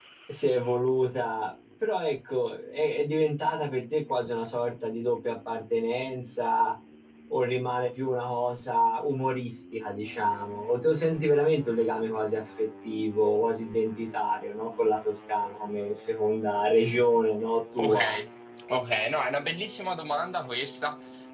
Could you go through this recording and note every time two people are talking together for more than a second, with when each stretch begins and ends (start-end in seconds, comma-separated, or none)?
none